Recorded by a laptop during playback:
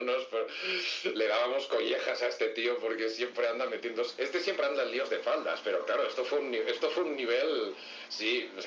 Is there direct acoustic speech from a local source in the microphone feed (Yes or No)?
No